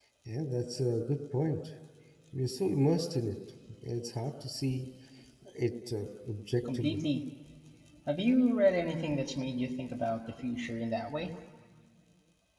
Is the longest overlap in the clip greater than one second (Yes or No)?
No